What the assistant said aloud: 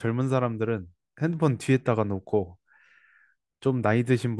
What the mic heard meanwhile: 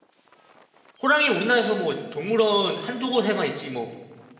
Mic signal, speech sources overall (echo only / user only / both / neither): user only